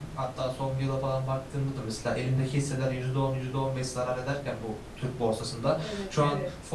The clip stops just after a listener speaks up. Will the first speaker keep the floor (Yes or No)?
Yes